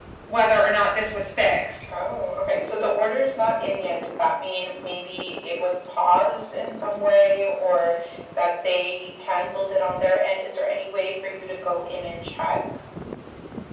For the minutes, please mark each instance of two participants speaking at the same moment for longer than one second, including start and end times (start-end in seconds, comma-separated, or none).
none